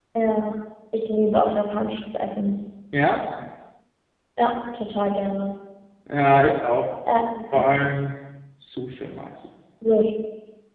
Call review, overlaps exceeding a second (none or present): none